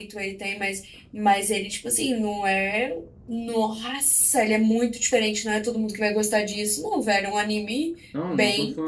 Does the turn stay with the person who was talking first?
No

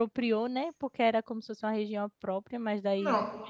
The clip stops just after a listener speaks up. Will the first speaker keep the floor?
Yes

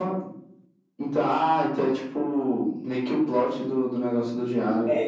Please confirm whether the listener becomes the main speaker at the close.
Yes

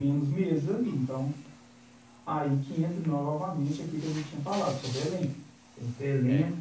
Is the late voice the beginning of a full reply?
No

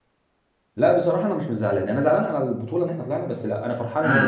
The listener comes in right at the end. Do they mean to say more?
Yes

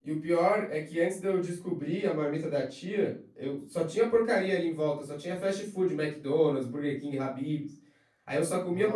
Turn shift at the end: No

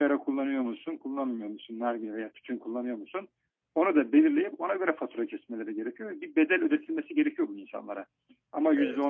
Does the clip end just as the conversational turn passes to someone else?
No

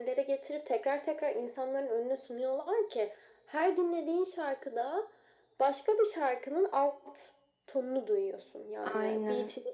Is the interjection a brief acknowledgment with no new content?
Yes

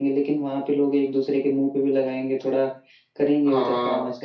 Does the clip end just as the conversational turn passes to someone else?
Yes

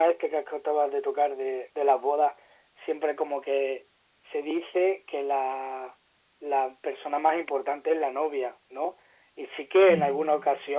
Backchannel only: Yes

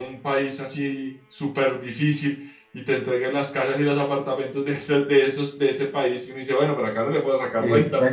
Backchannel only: No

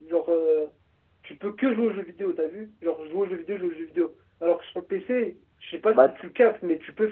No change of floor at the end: Yes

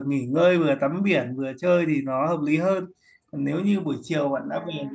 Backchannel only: Yes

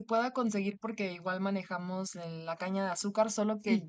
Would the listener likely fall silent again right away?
Yes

